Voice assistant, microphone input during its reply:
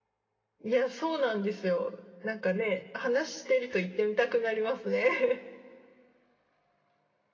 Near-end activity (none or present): present